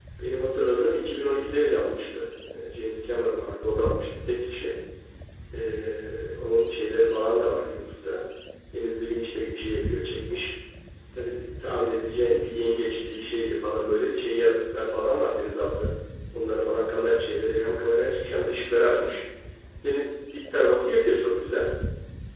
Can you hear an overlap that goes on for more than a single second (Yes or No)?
No